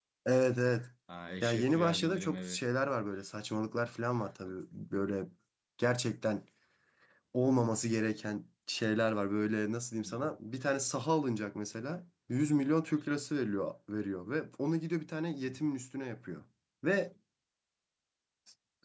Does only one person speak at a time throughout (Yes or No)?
No